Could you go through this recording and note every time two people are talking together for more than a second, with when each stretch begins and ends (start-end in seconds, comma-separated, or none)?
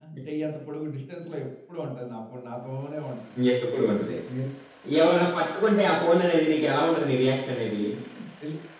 none